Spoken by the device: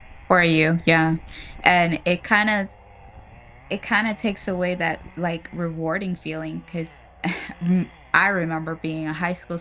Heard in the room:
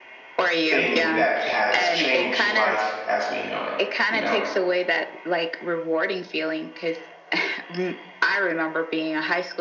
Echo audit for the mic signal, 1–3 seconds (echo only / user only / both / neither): both